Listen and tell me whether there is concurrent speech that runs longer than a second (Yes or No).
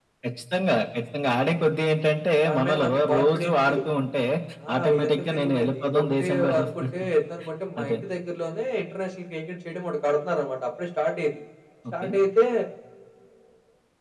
Yes